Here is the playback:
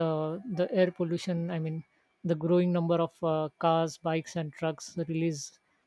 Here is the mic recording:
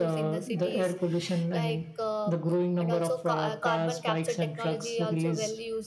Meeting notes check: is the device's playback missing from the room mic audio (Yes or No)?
No